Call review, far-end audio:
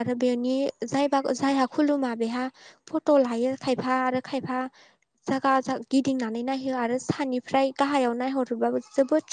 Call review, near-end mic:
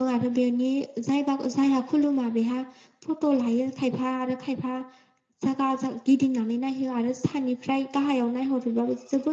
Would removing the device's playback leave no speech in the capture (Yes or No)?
Yes